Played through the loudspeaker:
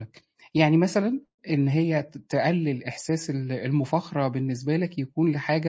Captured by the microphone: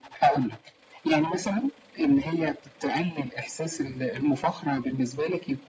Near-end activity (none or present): none